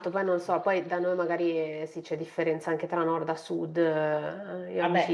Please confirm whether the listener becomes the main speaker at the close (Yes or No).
Yes